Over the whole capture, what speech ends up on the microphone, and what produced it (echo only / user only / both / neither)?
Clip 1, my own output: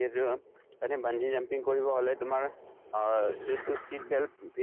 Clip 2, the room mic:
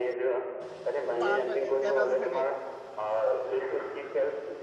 both